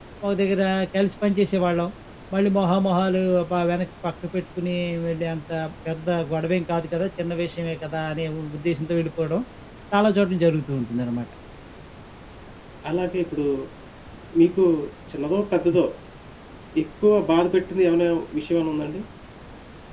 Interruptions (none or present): none